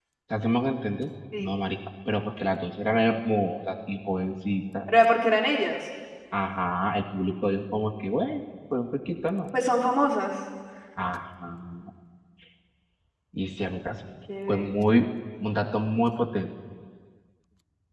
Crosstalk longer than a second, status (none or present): none